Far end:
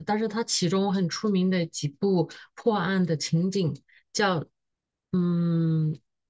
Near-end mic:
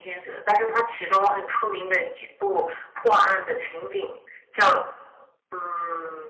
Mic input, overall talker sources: echo only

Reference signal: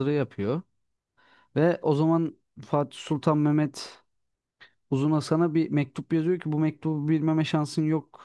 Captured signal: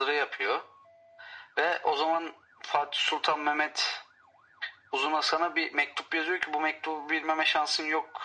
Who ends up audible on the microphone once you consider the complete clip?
echo only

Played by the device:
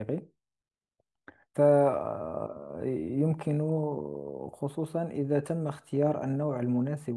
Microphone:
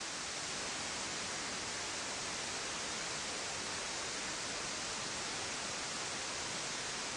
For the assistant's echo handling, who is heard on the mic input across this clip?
neither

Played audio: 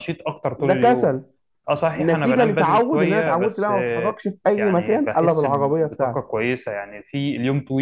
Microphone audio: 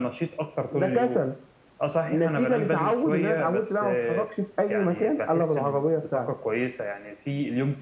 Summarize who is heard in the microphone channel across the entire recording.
echo only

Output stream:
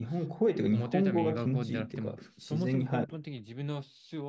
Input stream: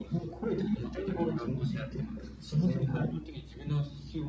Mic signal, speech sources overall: echo only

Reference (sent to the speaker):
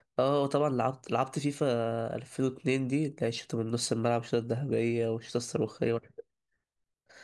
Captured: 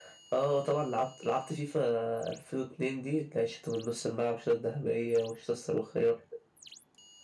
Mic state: echo only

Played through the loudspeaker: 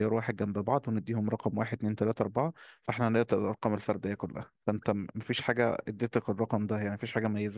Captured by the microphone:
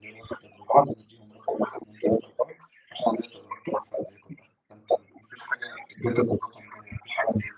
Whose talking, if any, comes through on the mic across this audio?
echo only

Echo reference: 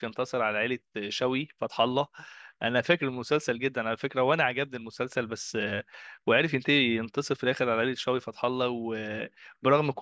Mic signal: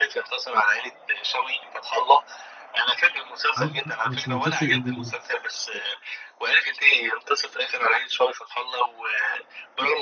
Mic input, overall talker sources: both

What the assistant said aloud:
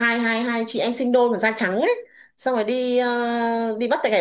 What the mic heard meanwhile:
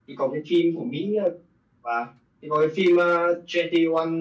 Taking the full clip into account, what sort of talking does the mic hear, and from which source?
user only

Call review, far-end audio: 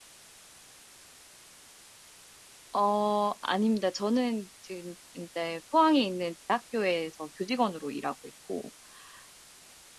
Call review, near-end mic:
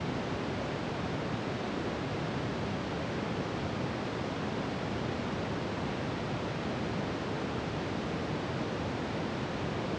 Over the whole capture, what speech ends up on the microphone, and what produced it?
neither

